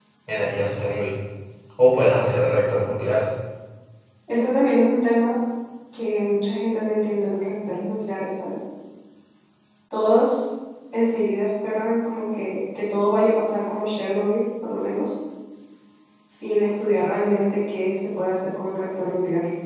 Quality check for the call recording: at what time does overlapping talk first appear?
none

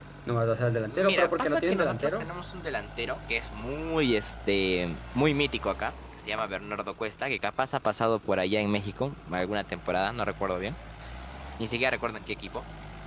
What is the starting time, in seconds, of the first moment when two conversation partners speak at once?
0.9 s

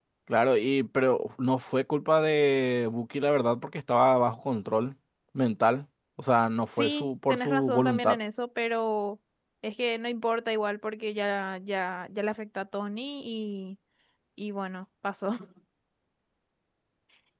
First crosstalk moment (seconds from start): 6.7 s

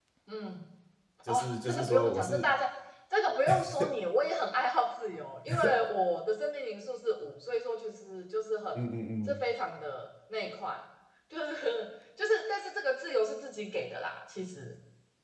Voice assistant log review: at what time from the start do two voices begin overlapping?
1.3 s

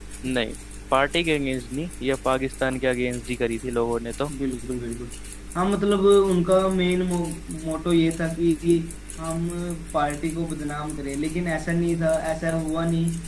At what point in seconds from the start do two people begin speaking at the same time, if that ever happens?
none

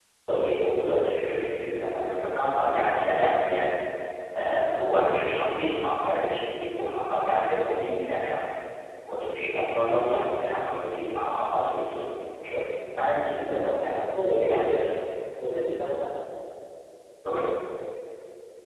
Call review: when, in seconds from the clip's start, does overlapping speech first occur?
13.3 s

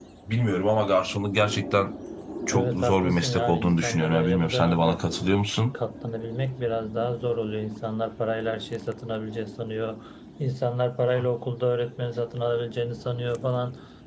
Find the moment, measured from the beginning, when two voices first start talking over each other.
2.5 s

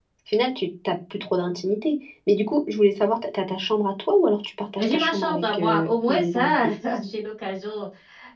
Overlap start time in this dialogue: 4.8 s

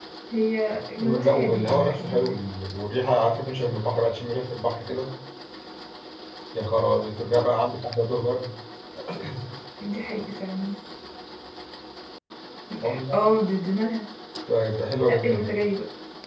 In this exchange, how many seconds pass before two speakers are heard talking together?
1.0 s

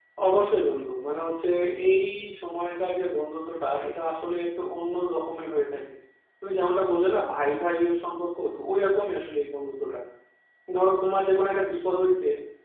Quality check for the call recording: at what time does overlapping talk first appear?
none

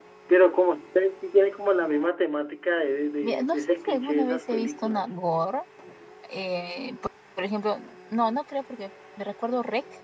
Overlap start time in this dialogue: 3.2 s

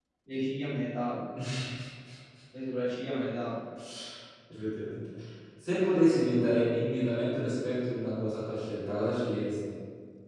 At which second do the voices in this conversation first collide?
none

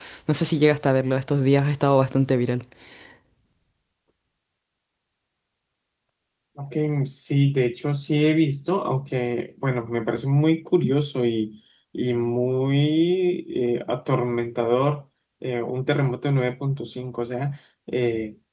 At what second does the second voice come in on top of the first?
none

